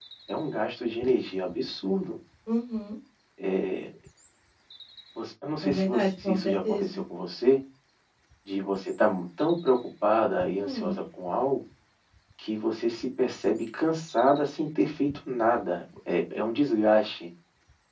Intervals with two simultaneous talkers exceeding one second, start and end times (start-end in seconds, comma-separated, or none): 5.6-7.0